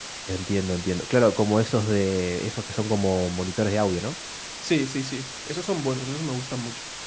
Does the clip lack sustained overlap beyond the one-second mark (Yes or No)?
Yes